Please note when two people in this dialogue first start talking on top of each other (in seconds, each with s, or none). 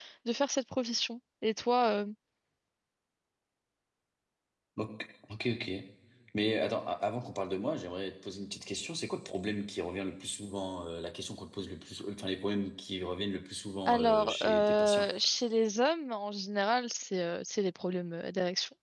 13.9 s